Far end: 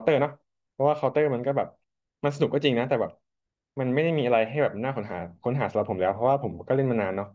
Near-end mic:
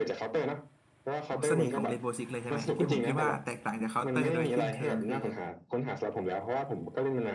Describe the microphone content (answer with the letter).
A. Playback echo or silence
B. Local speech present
B